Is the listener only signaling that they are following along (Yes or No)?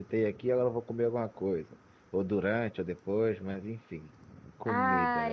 No